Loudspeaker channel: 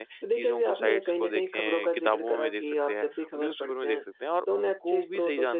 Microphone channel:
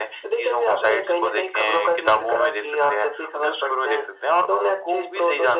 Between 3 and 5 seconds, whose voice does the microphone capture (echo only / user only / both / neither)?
echo only